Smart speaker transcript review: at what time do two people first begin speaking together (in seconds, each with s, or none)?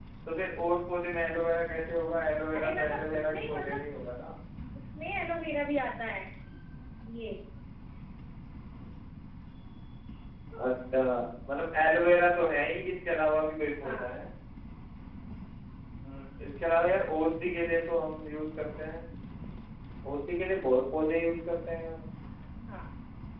2.6 s